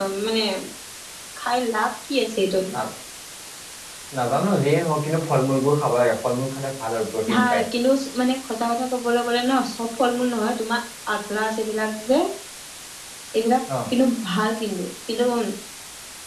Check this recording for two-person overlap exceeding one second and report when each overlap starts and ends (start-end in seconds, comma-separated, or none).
none